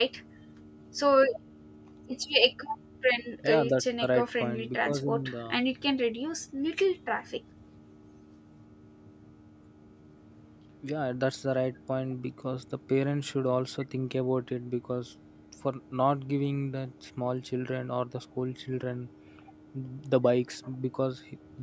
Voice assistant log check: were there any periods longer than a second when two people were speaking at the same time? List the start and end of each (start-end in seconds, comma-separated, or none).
3.4-5.6